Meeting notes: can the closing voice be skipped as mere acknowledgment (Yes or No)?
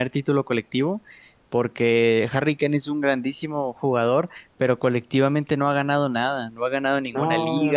Yes